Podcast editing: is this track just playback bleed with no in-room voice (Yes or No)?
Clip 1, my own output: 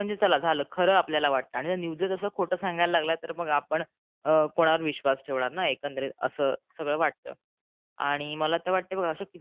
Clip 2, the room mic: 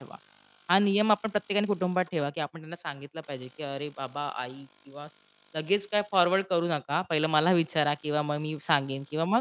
No